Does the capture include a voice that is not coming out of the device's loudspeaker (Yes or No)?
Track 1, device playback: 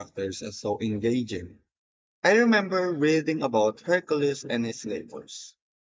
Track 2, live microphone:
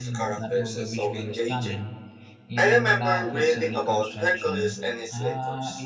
Yes